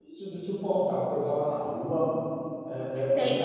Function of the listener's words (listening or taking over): taking over